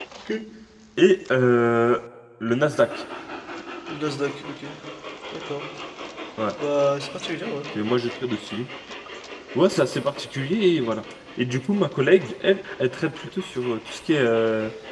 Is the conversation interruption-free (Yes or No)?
Yes